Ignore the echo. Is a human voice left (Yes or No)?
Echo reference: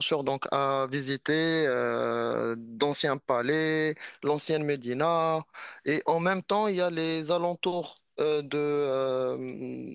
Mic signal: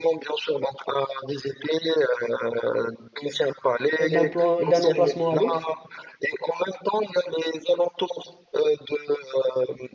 Yes